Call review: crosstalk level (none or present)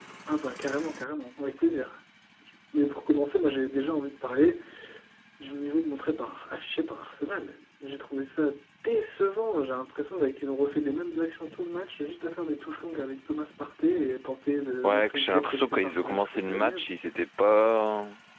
present